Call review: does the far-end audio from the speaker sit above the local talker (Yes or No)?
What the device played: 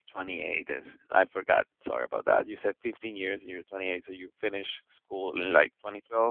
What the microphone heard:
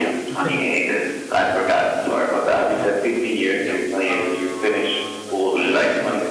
Yes